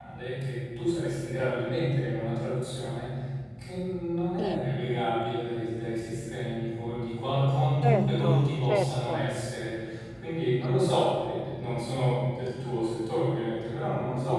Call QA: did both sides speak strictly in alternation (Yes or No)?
No